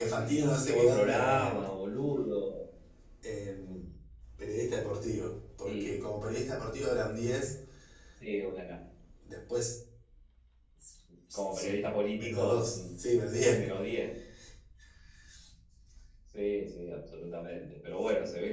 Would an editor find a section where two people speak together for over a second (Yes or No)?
Yes